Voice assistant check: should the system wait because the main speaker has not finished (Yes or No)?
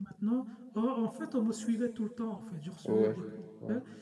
Yes